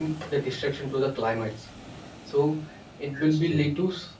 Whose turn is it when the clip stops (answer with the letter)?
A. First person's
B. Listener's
A